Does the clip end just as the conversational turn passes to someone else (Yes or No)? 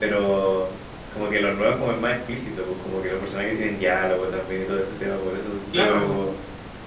No